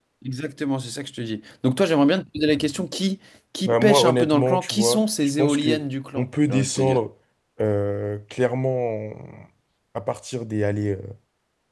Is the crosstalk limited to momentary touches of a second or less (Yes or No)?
No